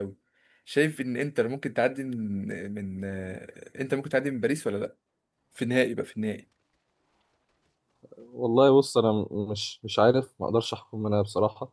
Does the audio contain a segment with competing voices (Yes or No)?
No